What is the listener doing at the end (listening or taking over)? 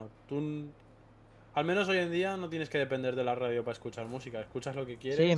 taking over